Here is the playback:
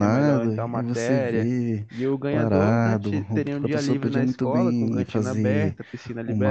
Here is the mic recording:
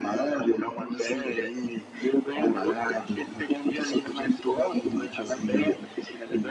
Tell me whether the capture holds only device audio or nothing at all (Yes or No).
Yes